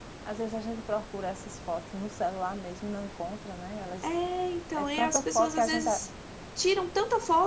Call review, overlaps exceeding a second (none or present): present